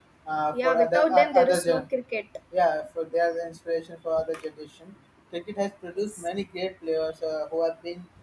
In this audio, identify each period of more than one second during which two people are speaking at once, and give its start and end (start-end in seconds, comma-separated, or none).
0.5-1.8